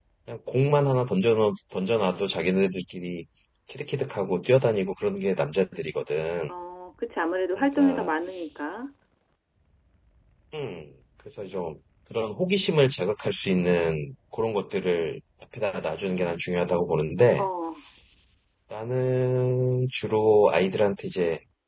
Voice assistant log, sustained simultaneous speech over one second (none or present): none